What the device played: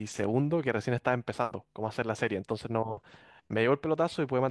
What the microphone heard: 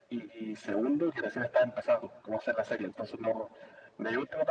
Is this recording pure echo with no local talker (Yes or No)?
Yes